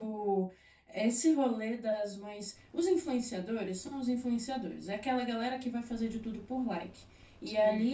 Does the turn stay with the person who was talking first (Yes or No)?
Yes